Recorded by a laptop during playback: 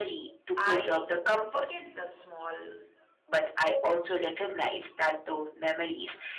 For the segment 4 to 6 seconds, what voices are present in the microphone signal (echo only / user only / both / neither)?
echo only